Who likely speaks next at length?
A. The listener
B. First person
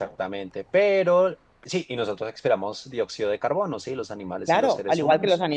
A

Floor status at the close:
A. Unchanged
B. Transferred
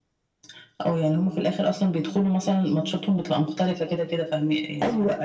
B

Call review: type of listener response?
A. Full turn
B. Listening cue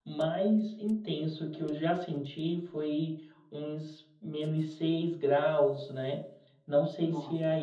B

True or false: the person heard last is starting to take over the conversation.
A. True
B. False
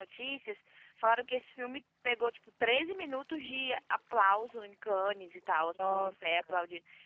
B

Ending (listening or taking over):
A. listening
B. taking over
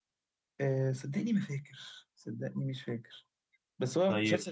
A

